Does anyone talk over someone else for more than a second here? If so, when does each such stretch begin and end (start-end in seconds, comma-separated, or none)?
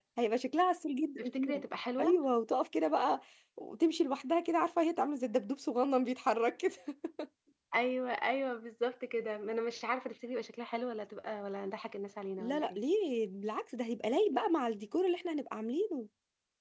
none